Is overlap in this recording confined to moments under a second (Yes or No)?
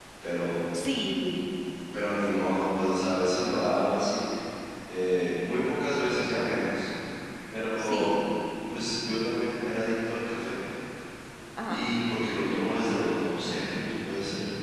Yes